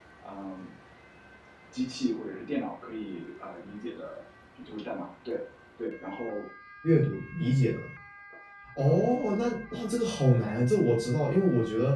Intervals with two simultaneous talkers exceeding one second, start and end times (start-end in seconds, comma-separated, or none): none